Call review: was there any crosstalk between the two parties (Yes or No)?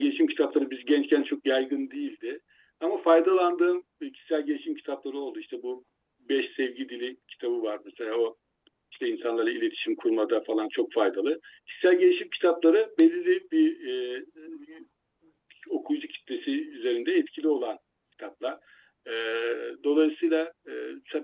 No